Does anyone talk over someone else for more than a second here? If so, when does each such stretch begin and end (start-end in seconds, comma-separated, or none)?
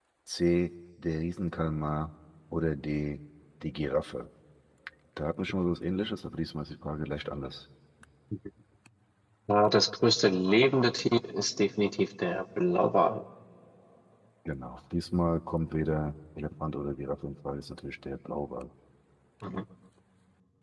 none